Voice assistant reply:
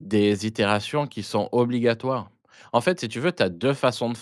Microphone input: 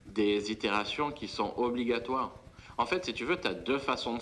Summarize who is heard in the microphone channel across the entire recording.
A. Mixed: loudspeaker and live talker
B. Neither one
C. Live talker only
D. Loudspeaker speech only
D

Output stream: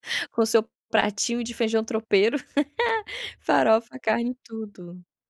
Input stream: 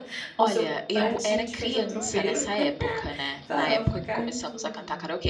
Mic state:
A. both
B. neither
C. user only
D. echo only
A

